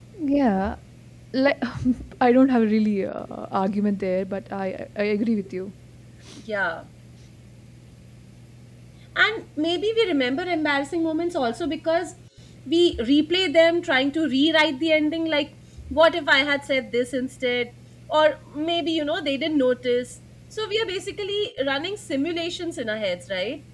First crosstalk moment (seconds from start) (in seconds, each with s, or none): none